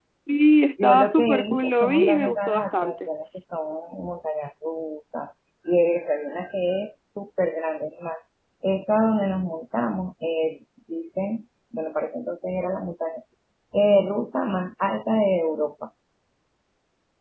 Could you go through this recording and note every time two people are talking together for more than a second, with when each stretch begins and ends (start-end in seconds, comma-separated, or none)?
0.8-3.1